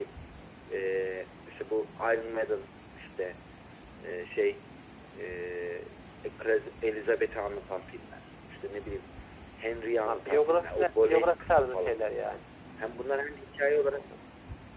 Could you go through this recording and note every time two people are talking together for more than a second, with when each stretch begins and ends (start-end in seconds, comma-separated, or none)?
10.1-11.9